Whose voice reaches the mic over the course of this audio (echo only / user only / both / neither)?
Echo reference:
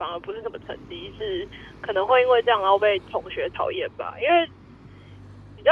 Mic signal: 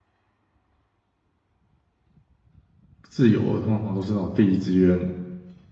user only